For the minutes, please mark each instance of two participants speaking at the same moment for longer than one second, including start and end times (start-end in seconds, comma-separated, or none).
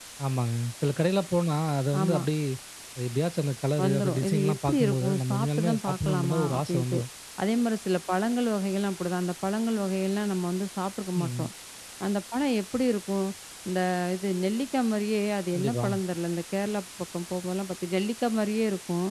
3.8-7.0